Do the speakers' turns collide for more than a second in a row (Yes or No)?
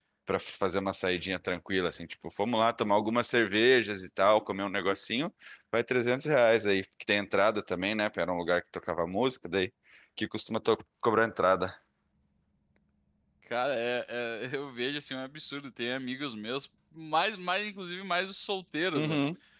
No